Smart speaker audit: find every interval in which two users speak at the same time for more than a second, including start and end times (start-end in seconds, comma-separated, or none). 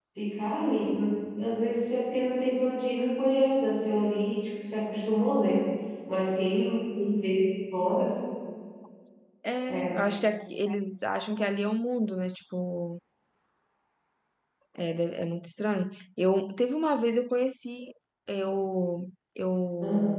none